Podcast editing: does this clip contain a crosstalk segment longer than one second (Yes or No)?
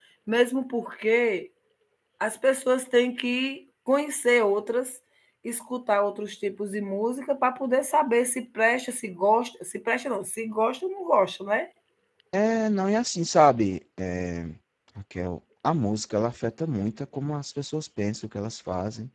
No